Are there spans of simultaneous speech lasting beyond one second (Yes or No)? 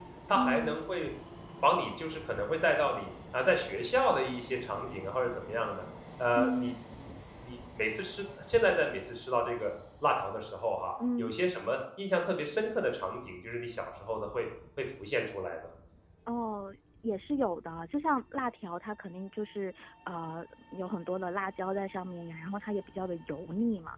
No